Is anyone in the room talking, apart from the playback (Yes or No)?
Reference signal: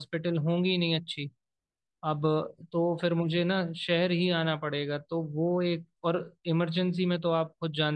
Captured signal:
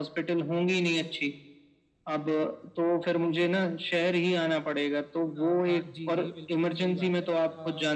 Yes